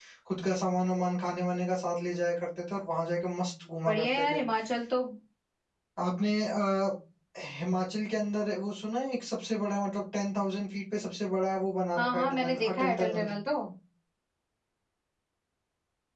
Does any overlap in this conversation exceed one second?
Yes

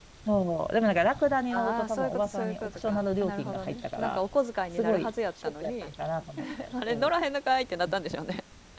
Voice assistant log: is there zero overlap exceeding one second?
No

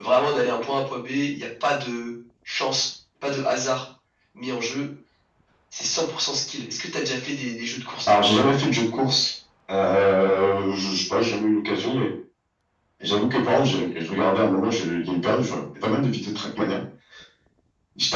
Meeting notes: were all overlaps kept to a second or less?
Yes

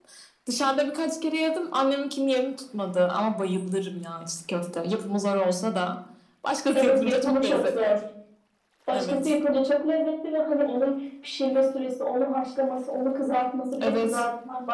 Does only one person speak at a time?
No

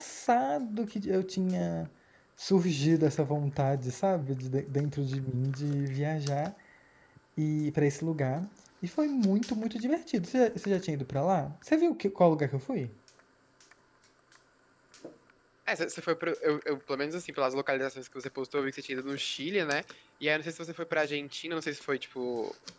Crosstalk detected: No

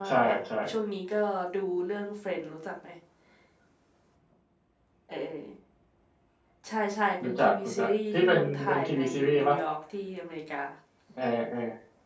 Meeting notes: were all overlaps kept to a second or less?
No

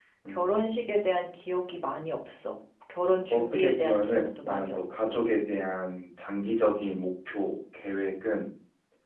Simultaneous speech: Yes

